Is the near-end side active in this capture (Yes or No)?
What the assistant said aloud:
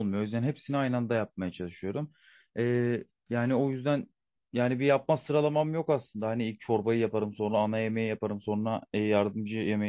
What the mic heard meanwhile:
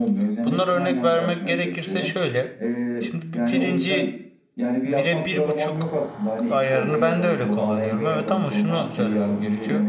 Yes